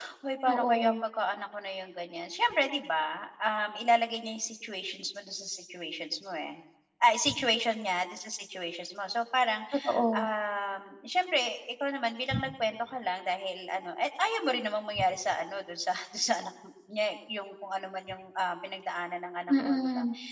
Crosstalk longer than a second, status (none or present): none